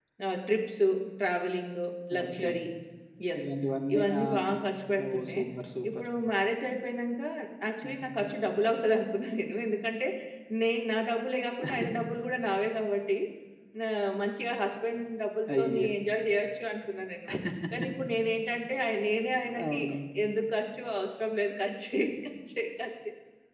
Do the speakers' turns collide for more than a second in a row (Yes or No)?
No